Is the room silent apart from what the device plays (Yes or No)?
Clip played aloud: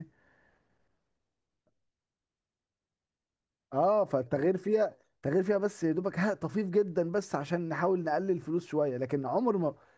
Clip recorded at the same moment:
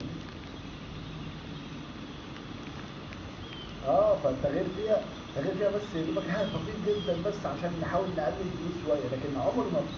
Yes